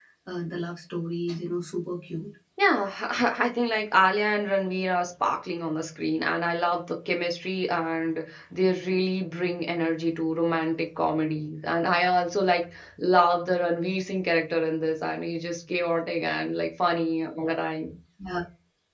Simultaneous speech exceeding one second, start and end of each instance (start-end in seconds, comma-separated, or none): none